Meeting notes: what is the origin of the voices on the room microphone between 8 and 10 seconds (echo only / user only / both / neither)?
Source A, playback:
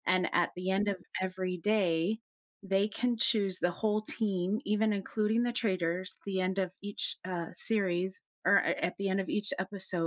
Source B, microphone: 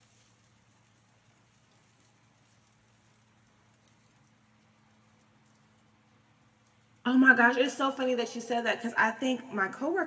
user only